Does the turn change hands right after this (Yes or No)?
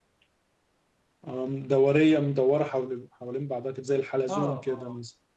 Yes